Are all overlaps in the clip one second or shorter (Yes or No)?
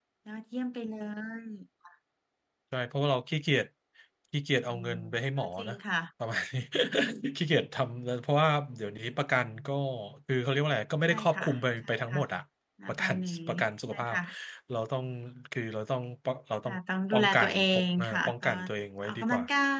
No